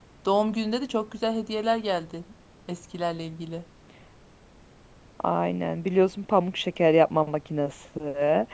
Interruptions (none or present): none